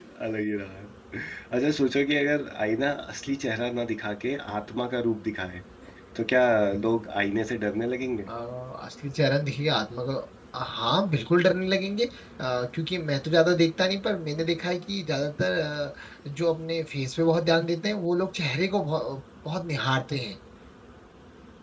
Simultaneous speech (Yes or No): No